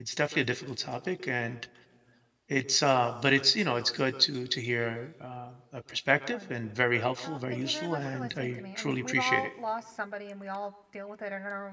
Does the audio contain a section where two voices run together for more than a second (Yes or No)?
Yes